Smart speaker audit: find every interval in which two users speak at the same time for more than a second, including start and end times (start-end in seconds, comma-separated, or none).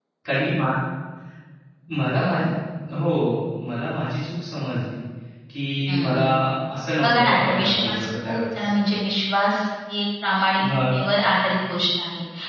7.0-8.7